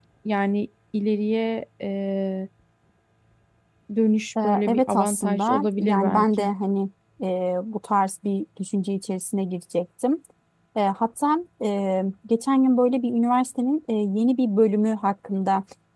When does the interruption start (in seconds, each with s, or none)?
4.4 s